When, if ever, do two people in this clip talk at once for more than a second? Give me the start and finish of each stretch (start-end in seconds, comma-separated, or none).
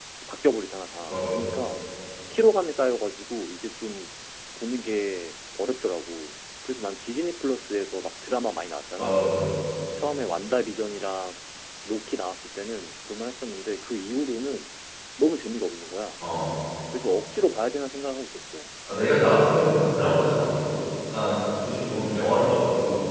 none